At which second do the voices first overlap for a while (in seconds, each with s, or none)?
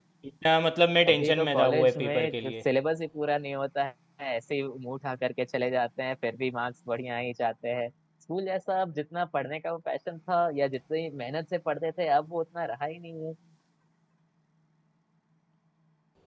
1.1 s